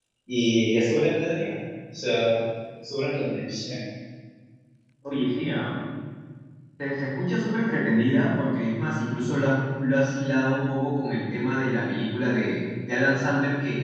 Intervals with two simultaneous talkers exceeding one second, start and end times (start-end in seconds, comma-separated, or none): none